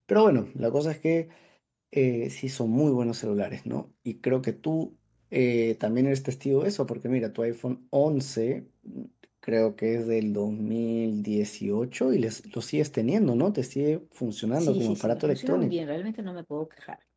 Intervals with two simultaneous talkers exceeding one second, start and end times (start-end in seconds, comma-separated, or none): 14.6-15.8